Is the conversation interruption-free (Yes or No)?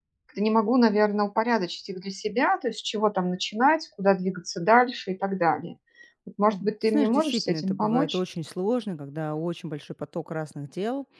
No